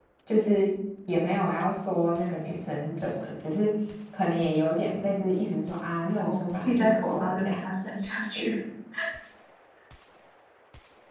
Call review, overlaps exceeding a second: present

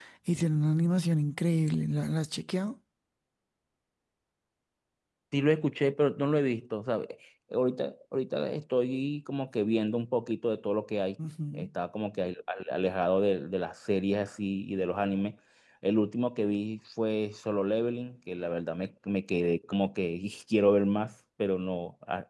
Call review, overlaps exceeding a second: none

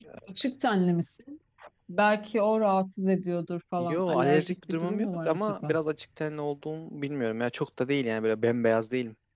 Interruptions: present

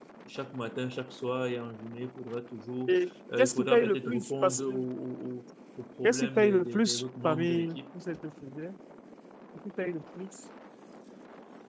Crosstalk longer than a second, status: present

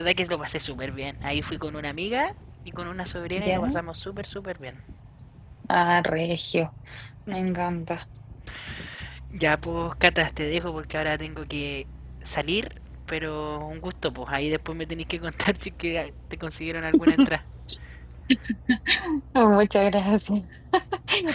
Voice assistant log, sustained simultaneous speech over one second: none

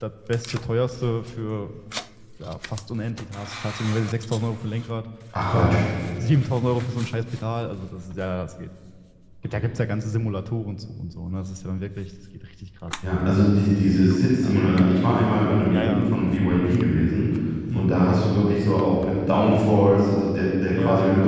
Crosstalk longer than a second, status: none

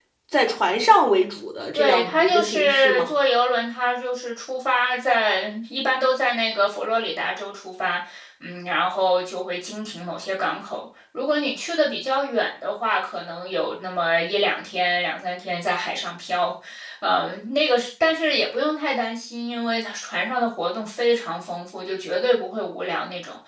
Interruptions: present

